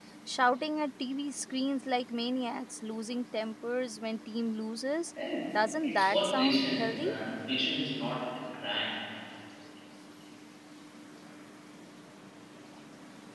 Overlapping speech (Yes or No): Yes